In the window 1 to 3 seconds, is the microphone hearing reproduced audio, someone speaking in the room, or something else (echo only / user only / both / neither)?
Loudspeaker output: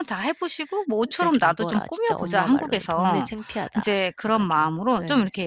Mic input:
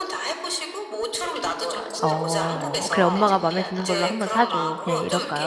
both